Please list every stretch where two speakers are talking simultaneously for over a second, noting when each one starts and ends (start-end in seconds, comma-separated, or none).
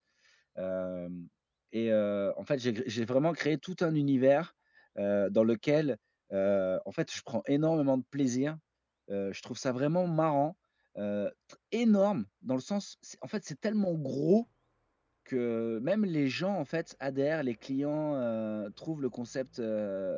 none